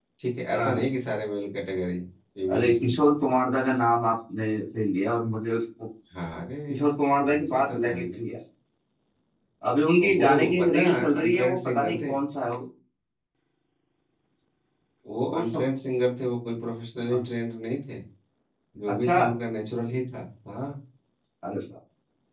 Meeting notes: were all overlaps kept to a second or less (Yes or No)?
No